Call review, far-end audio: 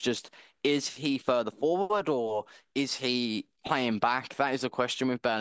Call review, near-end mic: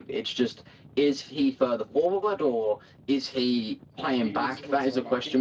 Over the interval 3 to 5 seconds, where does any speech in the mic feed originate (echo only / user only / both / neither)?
both